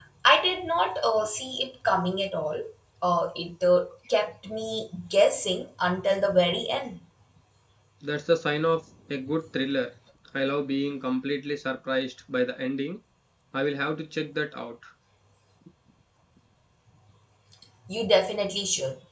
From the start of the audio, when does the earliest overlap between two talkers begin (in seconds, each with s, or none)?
none